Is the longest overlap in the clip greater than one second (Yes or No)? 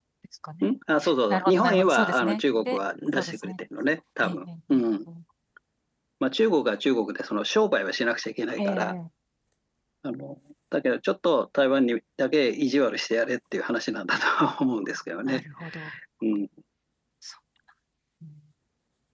Yes